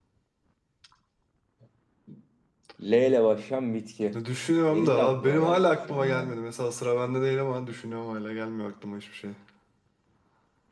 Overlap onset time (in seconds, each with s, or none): 4.7 s